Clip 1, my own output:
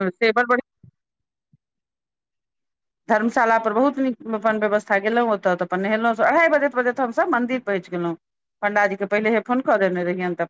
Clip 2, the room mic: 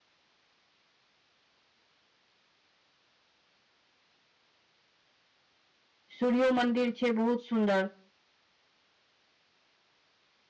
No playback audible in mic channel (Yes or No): Yes